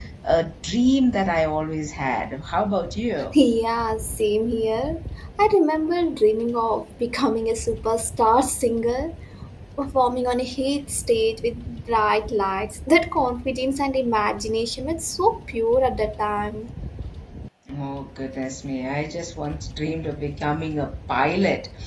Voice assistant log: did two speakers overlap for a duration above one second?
No

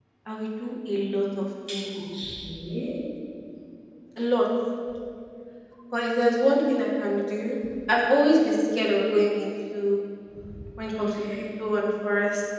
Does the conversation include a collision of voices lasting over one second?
No

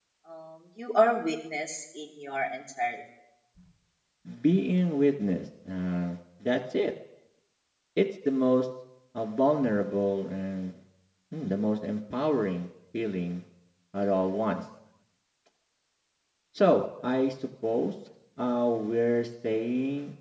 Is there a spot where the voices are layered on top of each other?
No

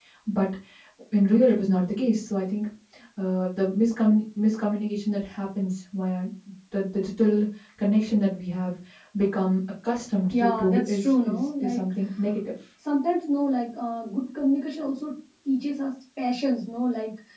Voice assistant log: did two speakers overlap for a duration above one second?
Yes, from 10.3 s

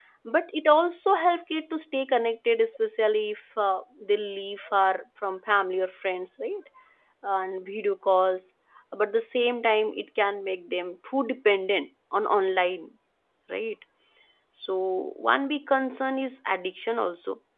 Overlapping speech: No

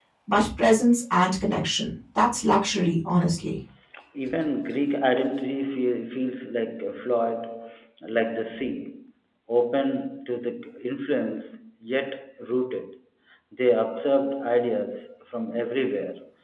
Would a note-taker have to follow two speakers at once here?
No

